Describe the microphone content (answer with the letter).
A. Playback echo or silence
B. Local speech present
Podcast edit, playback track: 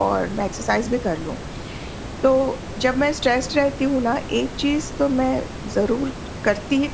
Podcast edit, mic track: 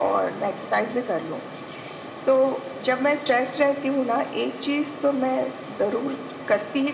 A